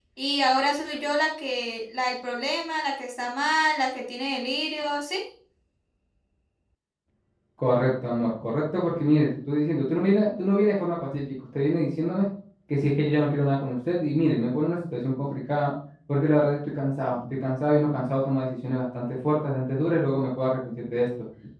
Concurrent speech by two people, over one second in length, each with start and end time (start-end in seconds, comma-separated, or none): none